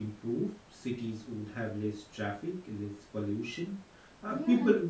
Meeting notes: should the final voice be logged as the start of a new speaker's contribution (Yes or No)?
No